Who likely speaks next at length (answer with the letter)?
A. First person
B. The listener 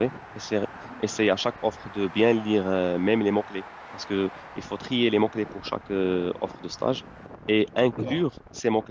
A